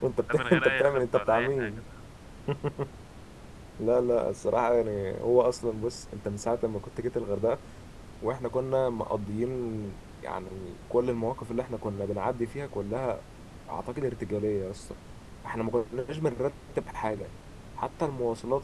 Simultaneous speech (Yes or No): Yes